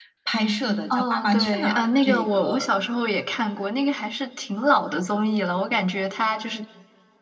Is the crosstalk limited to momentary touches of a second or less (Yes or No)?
No